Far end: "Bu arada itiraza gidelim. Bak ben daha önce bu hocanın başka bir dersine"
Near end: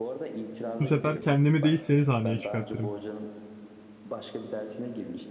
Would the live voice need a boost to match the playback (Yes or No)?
No